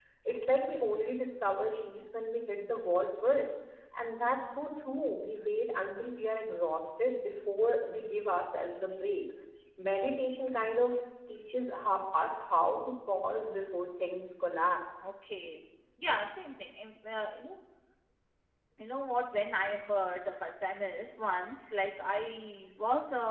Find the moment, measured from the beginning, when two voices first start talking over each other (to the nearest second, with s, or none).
none